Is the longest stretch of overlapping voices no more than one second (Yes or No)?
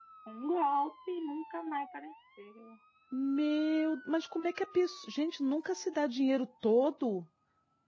Yes